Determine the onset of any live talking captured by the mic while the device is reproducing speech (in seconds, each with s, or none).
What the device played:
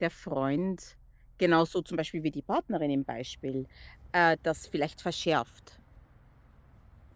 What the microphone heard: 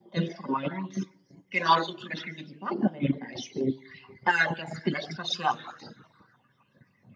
none